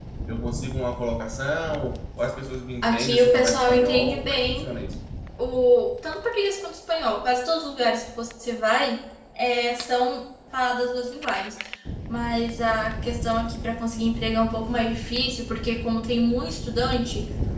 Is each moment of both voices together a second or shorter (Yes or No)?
No